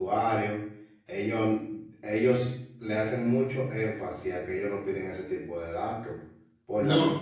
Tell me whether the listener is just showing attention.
Yes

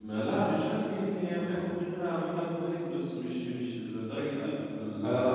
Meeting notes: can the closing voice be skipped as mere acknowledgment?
No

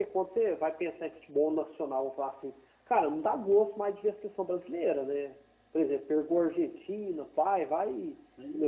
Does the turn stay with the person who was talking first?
Yes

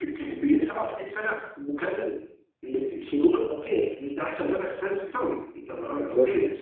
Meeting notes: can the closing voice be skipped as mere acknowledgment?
Yes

